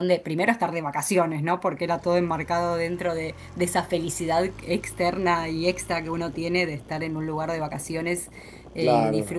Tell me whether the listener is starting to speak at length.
No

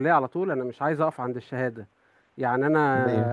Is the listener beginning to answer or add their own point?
No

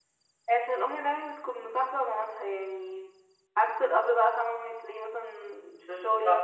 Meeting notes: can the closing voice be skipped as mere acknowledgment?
Yes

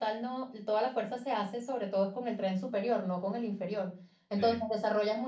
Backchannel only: Yes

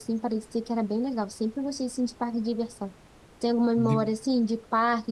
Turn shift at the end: No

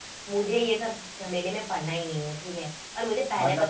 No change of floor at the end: Yes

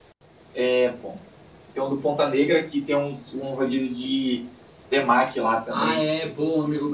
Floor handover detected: Yes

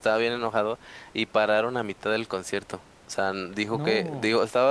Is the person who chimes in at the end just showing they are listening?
Yes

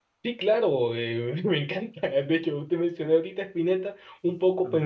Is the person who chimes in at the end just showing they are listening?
Yes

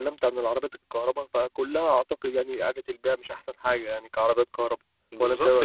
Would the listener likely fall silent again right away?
No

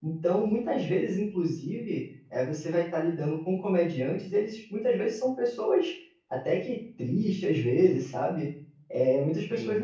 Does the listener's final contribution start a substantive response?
No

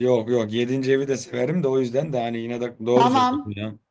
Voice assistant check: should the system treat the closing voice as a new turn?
Yes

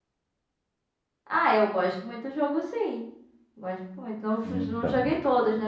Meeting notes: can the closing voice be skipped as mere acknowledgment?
Yes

